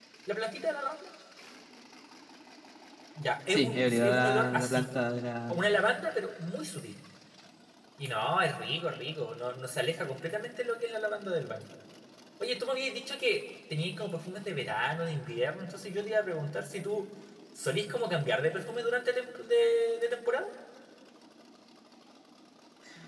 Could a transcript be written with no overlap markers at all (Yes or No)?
No